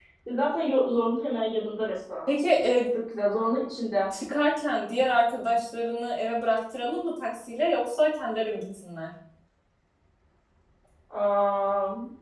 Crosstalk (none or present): none